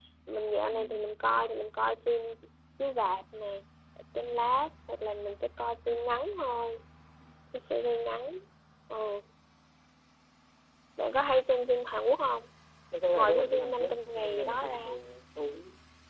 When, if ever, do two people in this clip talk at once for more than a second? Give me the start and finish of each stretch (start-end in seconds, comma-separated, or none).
13.1-14.8